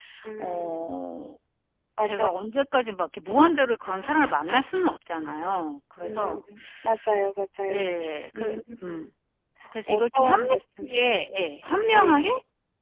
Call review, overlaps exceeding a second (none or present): present